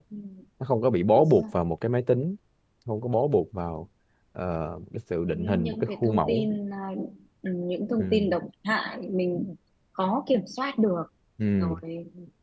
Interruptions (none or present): present